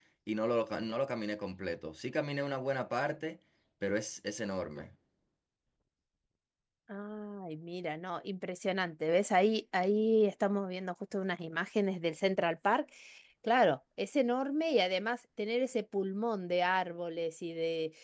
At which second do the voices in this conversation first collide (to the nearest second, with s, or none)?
none